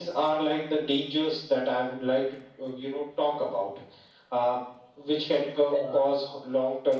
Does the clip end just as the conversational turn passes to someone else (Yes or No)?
No